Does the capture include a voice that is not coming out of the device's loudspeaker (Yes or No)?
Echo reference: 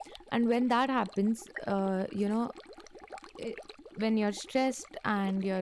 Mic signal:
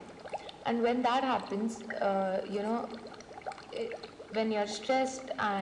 No